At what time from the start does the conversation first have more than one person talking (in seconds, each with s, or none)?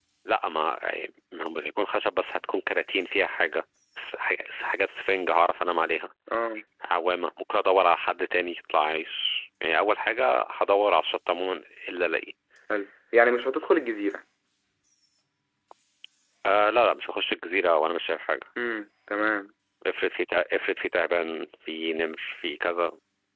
none